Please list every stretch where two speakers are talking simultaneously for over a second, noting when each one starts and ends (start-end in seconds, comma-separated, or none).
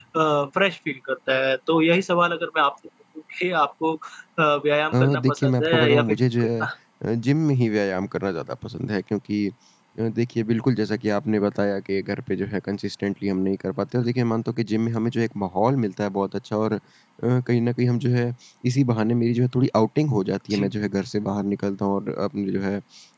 4.9-6.6